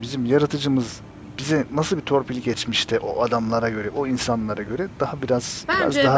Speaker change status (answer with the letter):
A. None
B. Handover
B